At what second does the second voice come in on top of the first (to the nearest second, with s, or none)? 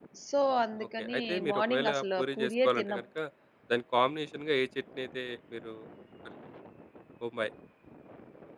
1 s